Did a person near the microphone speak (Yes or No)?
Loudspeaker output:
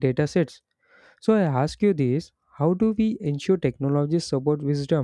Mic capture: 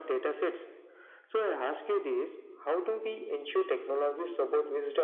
No